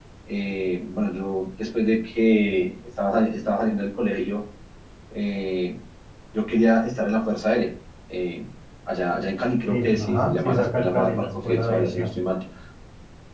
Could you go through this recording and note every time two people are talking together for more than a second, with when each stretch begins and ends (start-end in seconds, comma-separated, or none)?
9.7-12.1